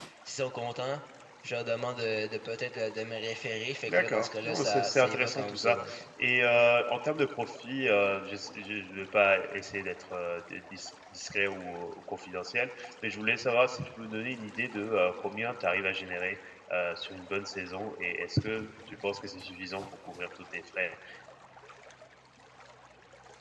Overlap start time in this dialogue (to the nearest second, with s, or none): 4 s